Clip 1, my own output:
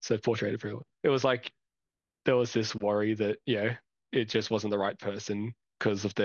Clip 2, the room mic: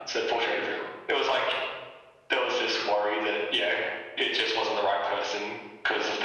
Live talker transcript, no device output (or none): none